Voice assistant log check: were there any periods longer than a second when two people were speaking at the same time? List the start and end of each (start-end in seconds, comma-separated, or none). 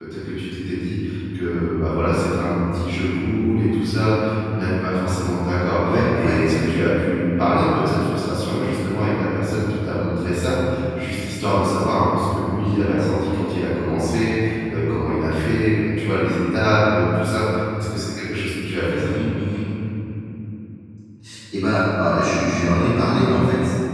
none